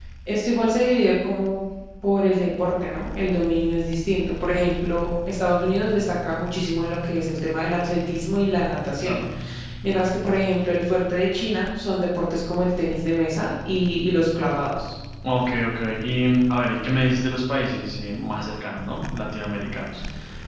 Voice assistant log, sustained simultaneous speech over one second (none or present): none